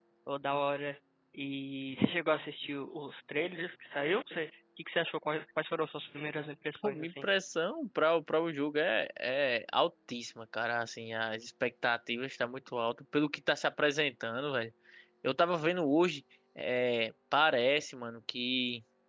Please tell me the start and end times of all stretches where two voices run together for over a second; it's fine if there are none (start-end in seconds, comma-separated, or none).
none